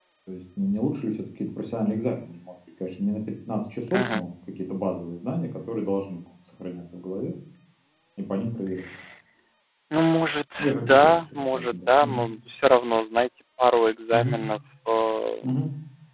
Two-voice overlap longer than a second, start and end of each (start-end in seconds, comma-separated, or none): 10.9-12.2